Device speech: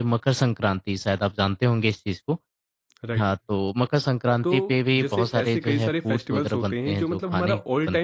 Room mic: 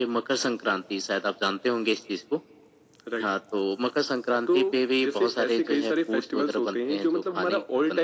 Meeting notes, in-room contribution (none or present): none